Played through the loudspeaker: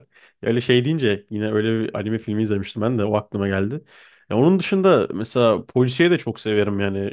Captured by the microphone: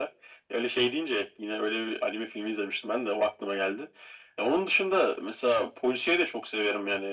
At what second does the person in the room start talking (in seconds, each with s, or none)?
none